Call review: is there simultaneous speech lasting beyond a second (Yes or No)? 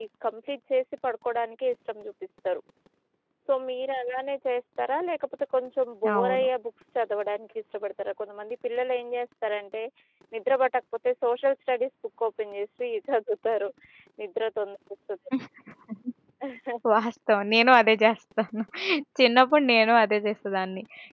No